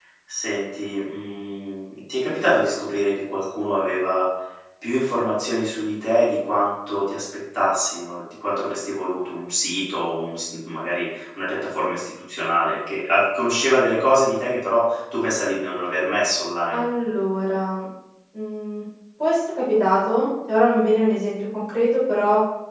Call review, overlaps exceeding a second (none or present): none